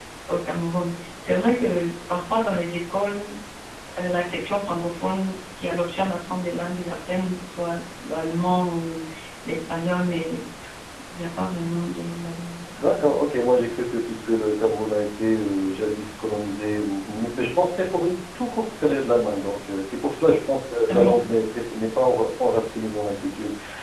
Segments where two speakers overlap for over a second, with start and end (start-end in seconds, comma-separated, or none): none